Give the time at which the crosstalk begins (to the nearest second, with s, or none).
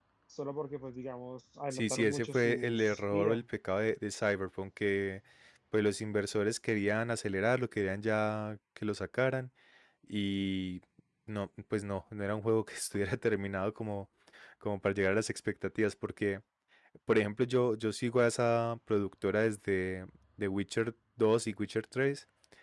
2 s